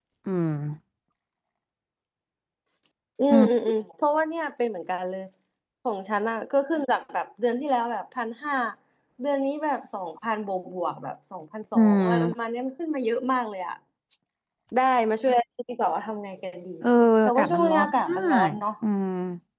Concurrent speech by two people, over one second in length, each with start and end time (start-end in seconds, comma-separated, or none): 17.3-18.6